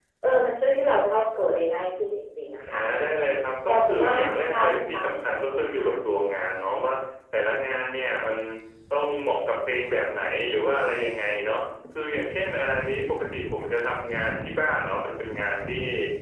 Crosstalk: present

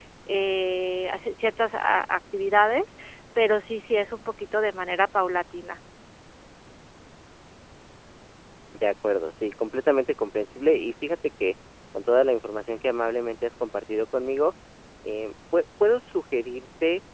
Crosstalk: none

